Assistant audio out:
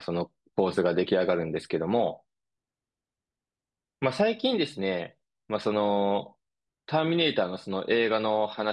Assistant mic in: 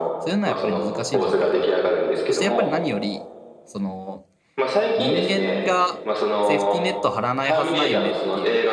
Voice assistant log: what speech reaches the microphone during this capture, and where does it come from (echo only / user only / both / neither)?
both